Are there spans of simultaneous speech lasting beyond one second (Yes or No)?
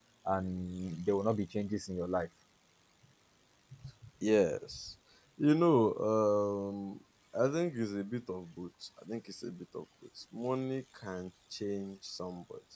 No